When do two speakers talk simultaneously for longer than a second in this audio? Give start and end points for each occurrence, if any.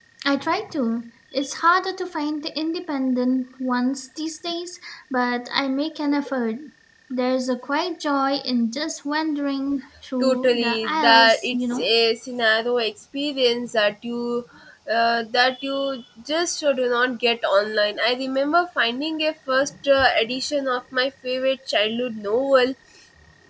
10.2-11.9

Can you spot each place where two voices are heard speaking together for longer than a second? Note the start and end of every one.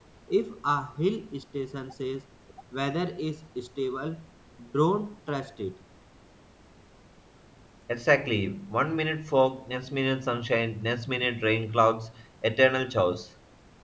none

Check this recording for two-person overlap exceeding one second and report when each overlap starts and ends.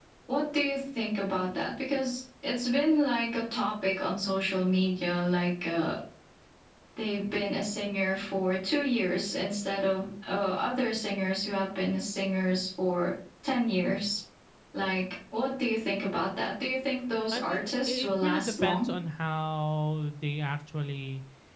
17.3-18.9

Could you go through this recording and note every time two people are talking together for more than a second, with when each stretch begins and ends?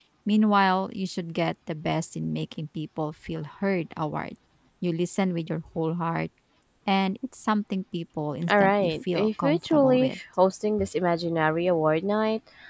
8.5-10.2

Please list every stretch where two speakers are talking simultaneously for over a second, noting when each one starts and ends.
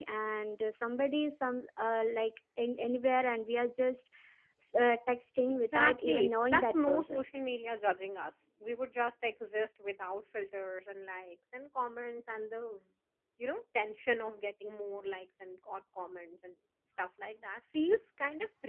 5.7-7.2

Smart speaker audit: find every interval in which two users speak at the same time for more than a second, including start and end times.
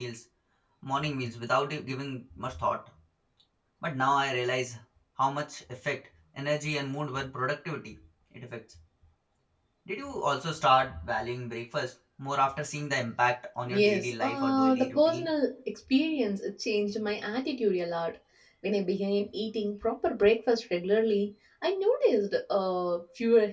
13.7-15.3

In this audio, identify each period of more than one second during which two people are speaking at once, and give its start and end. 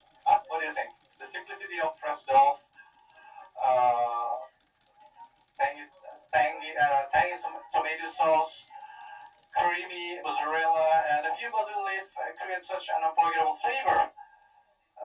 none

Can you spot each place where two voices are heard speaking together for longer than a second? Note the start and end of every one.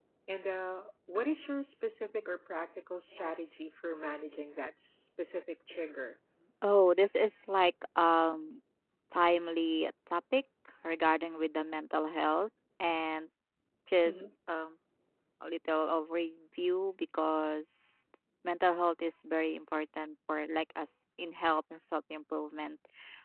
none

